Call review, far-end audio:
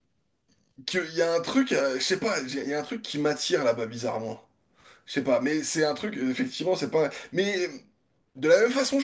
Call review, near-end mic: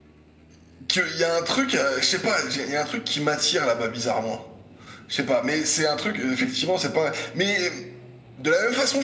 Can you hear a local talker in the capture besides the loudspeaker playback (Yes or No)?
No